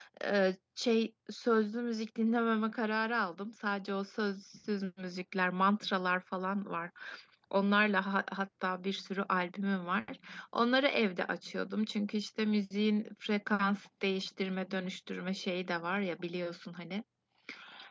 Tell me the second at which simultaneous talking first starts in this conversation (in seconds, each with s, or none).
none